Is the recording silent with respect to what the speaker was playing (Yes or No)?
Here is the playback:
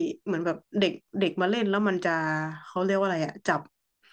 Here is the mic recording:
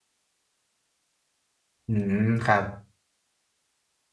Yes